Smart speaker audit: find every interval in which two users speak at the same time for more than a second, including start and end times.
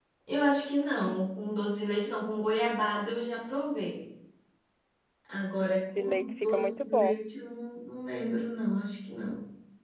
5.6-7.2

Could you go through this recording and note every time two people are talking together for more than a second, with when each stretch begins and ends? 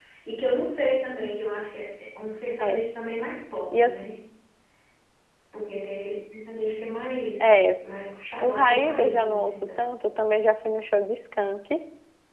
8.4-9.8

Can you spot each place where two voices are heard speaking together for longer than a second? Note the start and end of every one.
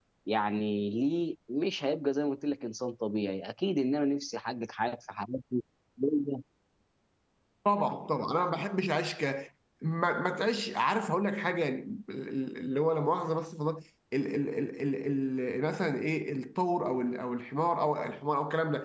none

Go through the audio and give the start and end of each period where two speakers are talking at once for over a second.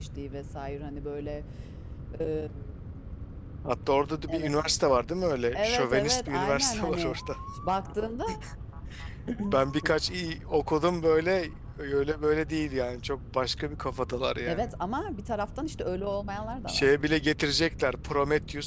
5.5-7.2

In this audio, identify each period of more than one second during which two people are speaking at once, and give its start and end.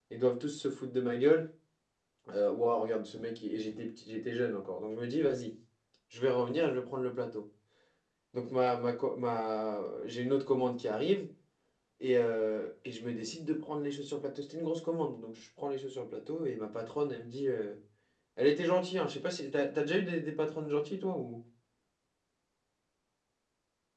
none

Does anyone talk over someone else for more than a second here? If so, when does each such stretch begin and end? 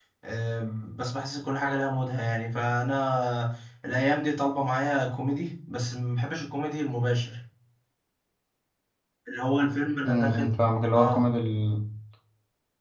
none

